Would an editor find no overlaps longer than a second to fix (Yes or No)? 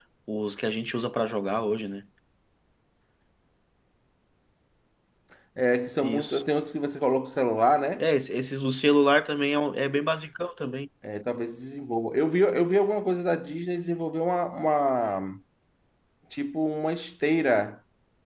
Yes